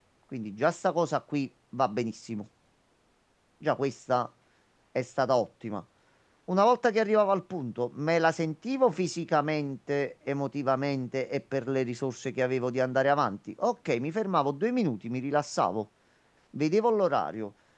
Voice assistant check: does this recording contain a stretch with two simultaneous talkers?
No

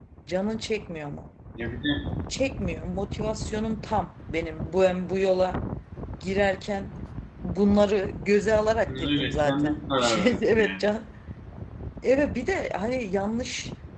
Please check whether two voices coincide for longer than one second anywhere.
Yes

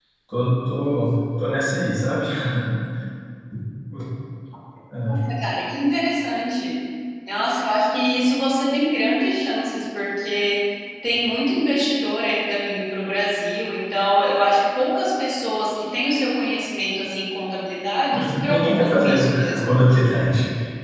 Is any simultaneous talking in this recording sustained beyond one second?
Yes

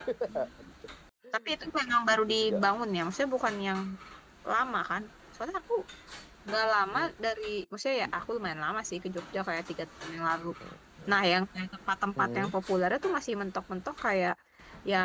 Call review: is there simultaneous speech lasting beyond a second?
No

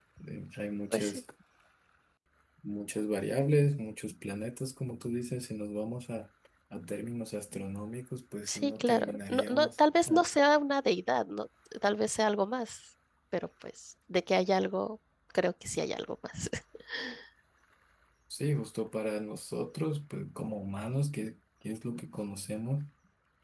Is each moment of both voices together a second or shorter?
No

